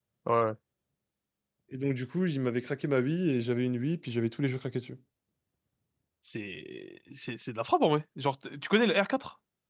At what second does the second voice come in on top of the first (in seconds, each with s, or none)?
none